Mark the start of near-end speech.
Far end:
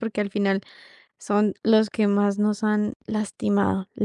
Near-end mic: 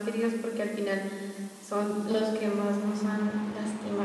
none

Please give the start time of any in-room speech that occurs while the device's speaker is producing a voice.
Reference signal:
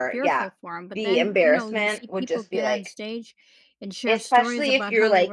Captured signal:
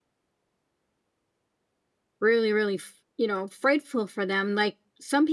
2 s

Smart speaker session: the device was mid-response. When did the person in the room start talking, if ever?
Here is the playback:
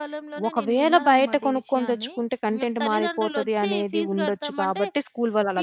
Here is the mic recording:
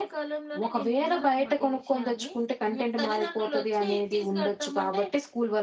none

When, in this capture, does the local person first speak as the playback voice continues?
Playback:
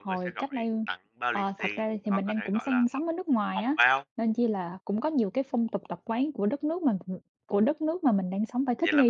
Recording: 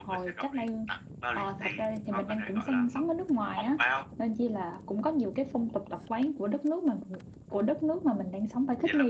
none

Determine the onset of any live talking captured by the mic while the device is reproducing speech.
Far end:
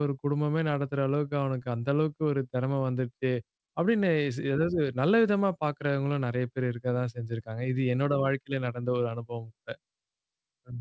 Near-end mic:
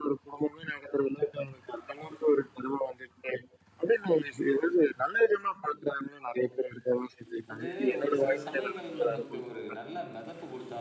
8 s

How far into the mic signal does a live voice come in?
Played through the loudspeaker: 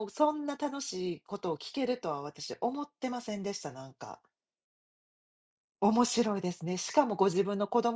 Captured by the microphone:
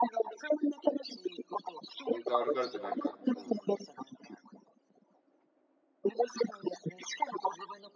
2 s

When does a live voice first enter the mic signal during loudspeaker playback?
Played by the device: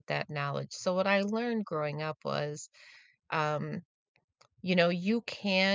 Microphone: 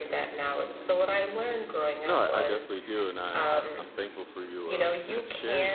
2 s

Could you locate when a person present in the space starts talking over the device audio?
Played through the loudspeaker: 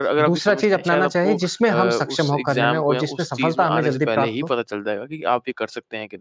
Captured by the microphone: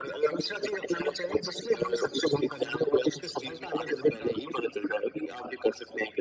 none

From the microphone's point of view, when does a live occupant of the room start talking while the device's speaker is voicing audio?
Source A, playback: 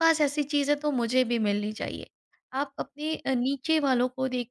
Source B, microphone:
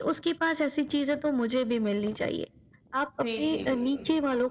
3 s

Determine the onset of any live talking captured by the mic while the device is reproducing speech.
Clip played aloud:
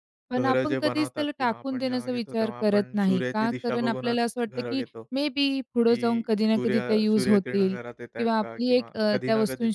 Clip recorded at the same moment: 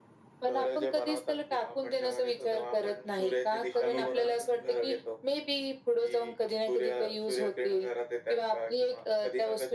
4 s

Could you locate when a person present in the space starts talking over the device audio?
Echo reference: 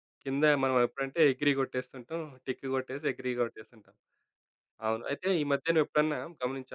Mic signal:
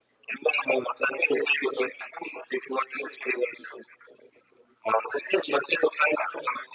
none

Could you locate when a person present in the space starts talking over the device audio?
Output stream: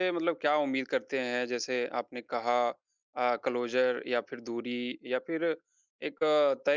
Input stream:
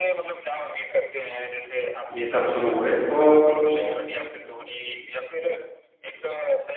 2 s

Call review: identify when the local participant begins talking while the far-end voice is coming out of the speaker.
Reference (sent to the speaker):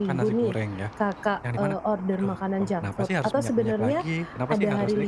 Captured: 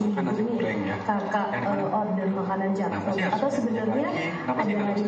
none

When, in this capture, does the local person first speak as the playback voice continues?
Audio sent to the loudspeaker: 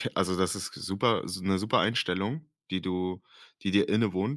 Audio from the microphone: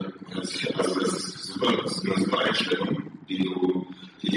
none

